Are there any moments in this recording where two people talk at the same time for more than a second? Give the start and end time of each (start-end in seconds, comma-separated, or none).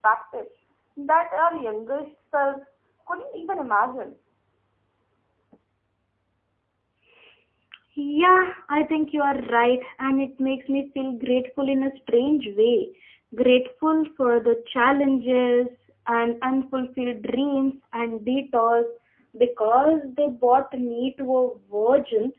none